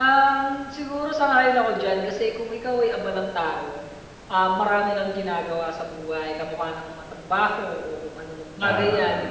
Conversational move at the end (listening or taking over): listening